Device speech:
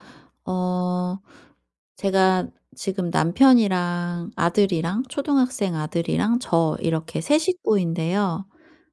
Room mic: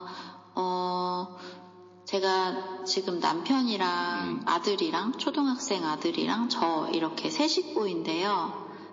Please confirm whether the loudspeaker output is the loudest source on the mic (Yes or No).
Yes